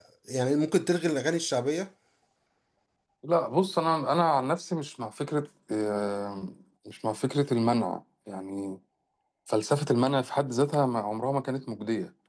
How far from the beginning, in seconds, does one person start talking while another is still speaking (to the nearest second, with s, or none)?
none